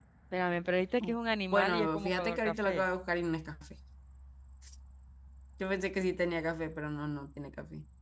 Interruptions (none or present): present